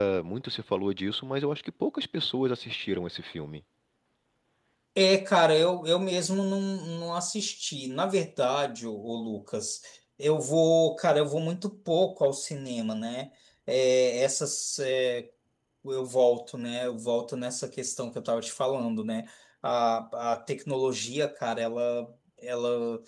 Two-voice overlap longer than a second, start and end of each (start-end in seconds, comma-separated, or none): none